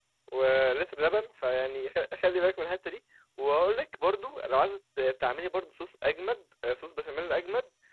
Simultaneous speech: No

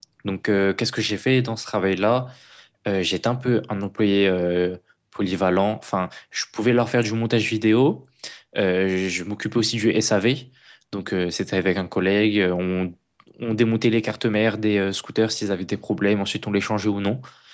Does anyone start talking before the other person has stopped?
No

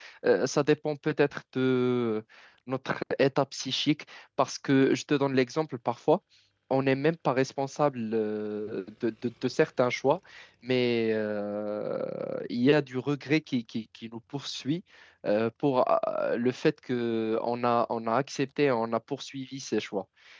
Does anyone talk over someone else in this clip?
No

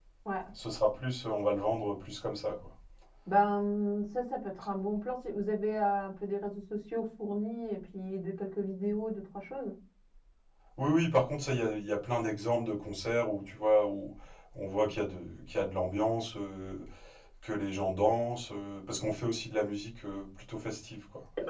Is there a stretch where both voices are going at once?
No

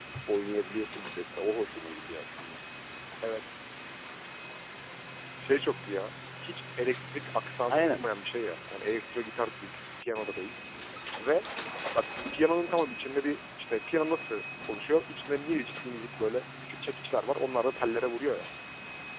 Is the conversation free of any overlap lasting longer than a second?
Yes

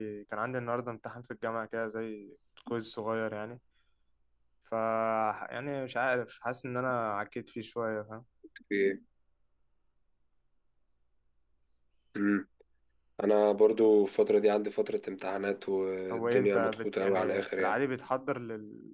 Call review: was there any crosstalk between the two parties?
Yes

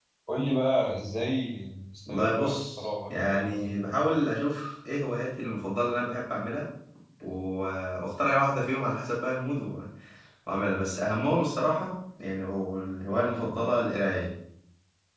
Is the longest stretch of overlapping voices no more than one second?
No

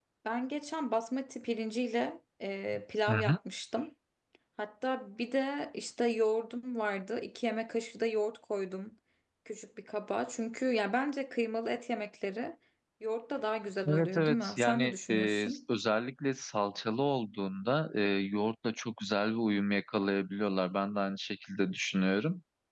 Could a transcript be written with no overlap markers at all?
No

